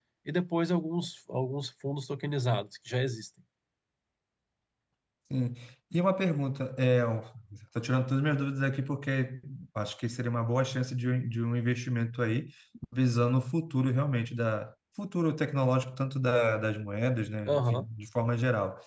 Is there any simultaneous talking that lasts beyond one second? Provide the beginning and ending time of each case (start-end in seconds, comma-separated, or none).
none